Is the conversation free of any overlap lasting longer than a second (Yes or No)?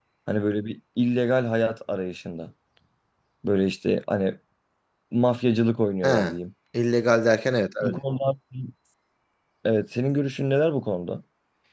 Yes